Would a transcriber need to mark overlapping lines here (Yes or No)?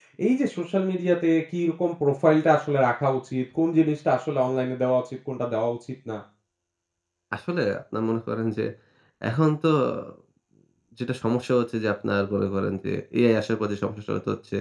No